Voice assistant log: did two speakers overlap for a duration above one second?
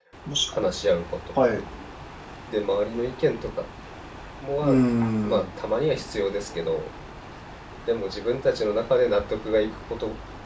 No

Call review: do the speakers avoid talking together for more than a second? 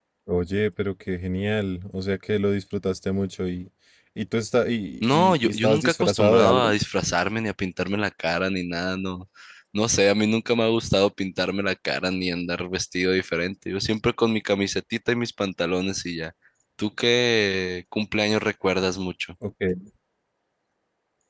No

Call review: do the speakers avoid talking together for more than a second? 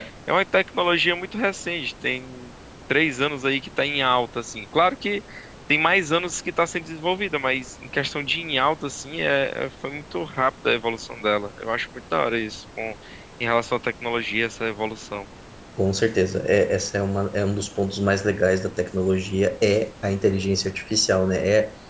Yes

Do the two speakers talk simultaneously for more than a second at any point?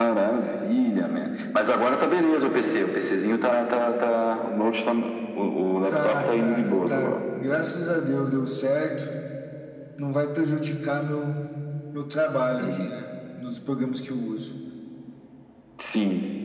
Yes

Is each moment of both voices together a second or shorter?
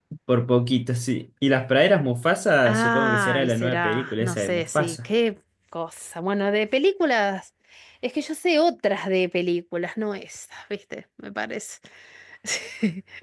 No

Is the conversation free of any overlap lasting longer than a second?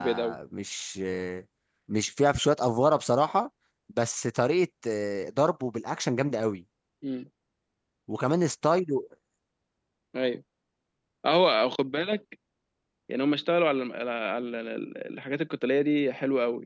Yes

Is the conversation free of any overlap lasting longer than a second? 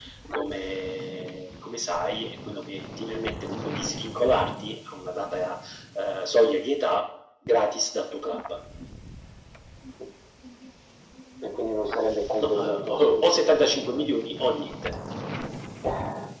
No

